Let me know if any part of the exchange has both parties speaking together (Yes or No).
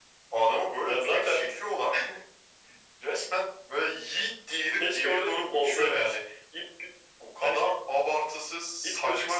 Yes